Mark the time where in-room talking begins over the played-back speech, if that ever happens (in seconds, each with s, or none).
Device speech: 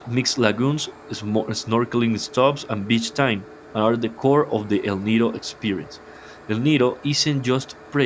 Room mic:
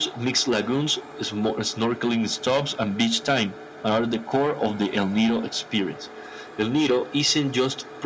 none